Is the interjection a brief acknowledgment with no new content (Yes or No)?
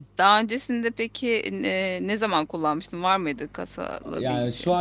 No